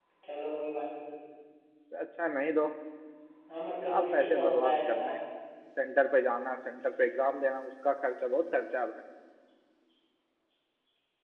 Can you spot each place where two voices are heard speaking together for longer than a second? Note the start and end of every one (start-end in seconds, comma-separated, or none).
3.8-5.1